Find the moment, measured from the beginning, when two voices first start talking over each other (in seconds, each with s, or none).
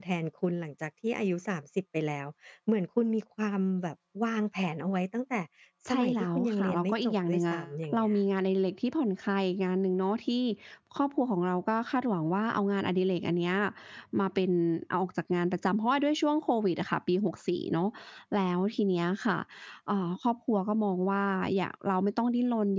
5.9 s